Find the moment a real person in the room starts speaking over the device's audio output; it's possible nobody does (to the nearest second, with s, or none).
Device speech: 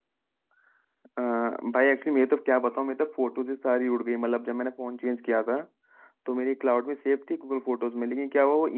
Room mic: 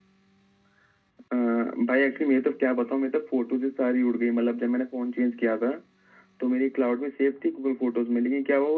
none